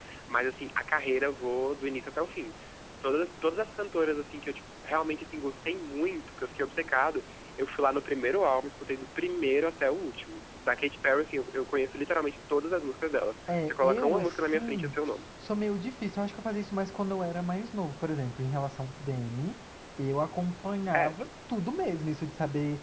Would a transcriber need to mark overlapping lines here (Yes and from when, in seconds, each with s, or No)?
Yes, from 13.7 s